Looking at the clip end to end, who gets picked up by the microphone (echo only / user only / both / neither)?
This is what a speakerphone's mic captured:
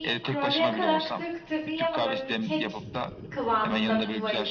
both